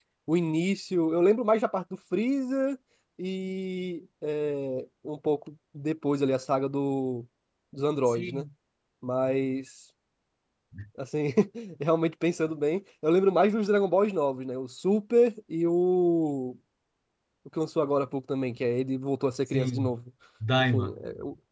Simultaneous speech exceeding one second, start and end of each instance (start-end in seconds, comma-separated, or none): none